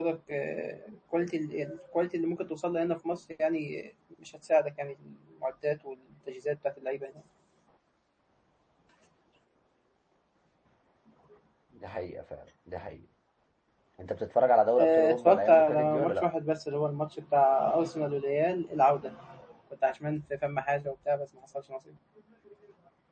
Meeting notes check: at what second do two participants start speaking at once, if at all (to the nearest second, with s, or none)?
15 s